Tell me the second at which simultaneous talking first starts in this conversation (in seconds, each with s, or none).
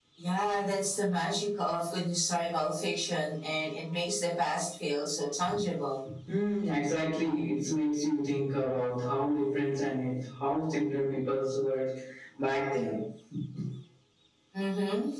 none